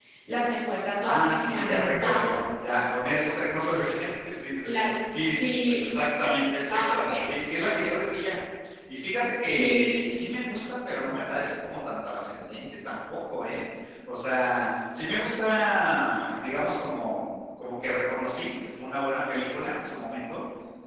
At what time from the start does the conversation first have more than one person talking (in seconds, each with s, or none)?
1.0 s